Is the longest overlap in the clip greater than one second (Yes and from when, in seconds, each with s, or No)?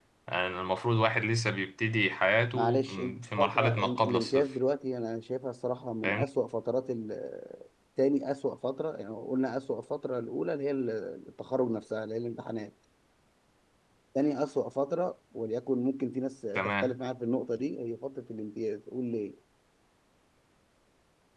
Yes, from 2.5 s